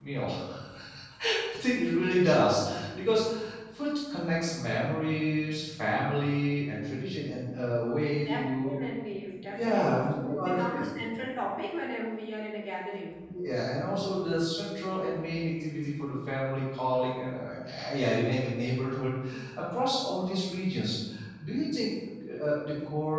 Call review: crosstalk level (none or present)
present